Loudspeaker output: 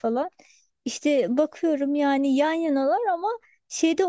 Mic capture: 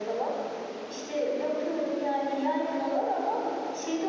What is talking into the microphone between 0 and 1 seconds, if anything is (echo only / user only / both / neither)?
echo only